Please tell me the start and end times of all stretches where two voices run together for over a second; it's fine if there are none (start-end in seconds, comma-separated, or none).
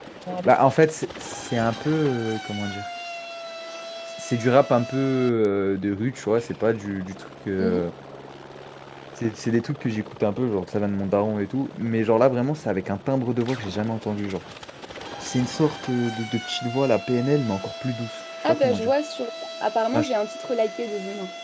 none